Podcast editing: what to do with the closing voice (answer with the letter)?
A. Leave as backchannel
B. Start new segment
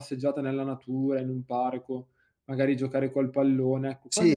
B